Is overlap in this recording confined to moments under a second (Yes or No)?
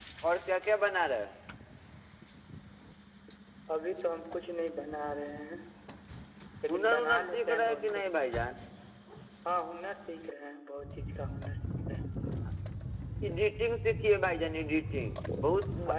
No